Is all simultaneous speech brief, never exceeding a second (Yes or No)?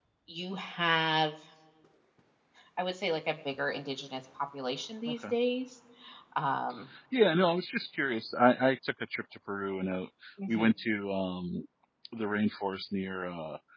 Yes